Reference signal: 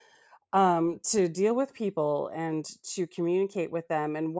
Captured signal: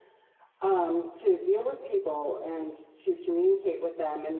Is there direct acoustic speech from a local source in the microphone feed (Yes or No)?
No